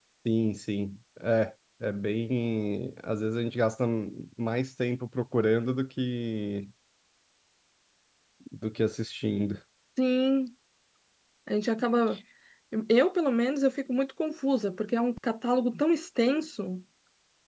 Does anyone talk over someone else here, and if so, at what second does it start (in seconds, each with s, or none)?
none